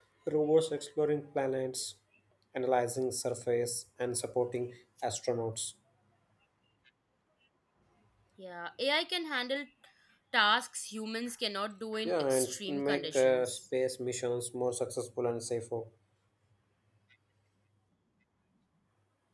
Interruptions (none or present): present